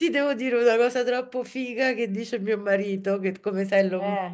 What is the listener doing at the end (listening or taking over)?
listening